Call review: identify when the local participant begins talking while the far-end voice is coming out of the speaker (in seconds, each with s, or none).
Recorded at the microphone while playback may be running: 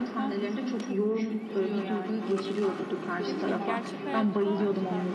3.3 s